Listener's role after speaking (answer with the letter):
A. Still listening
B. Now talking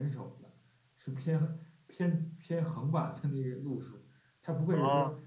A